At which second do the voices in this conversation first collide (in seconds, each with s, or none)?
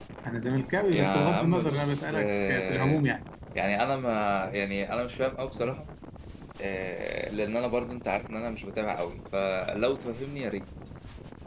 0.9 s